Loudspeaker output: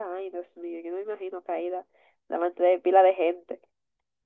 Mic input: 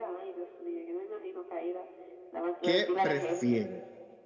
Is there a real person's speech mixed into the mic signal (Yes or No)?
Yes